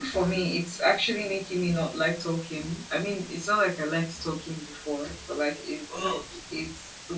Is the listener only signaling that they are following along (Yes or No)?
Yes